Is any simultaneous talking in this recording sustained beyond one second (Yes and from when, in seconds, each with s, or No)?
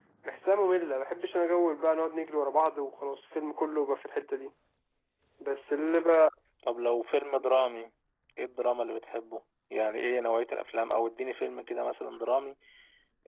No